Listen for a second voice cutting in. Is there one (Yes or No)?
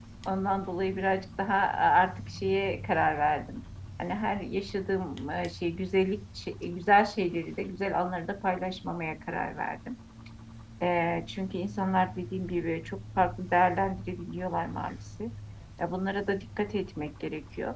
No